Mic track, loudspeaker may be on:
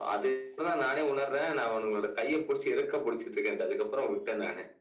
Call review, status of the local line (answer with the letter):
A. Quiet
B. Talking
A